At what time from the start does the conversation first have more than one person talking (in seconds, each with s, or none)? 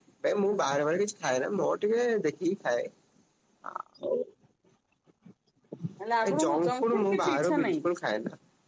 6.3 s